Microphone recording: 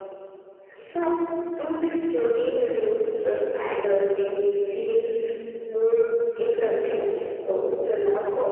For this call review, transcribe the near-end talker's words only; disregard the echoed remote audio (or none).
none